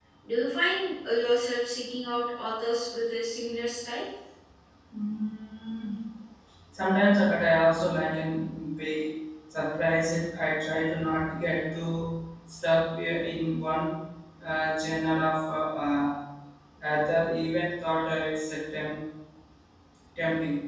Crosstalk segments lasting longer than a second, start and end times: none

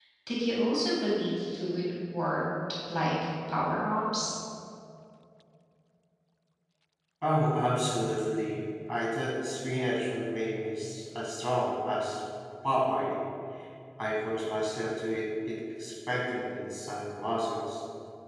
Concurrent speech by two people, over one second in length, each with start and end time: none

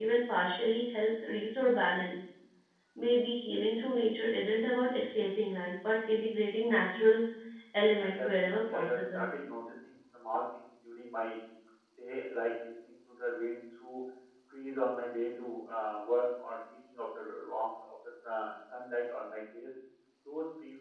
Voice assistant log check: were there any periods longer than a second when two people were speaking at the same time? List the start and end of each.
8.0-9.2

